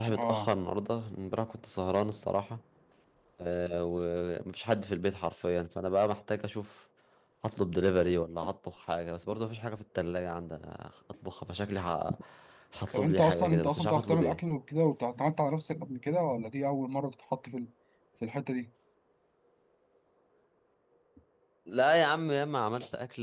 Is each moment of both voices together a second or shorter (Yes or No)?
No